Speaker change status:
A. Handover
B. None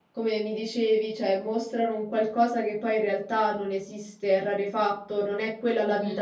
B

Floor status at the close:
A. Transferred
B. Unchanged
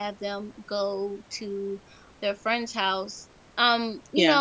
B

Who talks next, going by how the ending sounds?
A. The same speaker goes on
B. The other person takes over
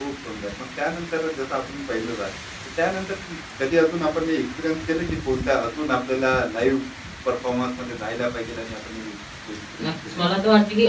B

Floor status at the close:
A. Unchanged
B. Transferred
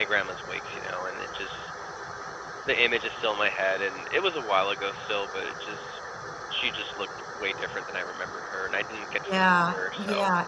B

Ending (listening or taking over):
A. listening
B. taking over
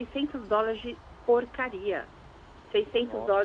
A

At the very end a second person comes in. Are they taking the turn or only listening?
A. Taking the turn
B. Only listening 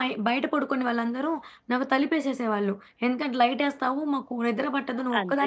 A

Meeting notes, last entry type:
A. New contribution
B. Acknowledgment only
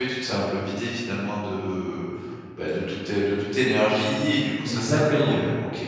B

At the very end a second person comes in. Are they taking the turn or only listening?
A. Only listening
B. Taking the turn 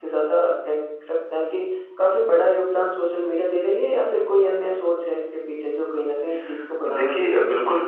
B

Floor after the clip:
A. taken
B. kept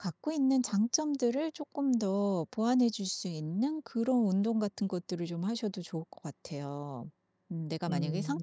B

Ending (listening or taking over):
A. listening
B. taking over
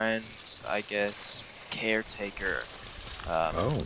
A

